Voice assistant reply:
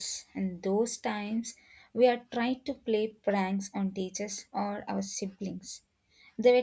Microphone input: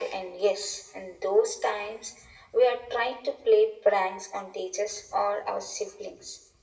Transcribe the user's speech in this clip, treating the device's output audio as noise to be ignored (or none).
none